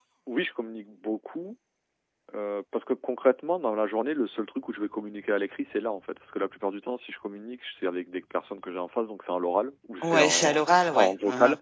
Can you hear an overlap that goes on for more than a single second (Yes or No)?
Yes